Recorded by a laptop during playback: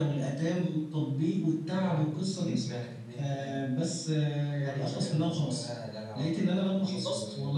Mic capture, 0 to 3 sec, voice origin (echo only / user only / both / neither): echo only